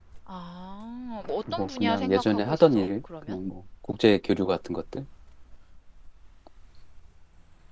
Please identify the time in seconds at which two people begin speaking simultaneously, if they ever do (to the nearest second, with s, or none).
1 s